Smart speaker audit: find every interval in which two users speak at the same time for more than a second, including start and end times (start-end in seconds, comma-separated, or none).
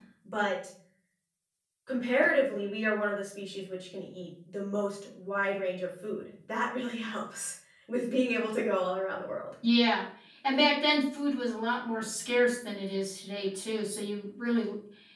none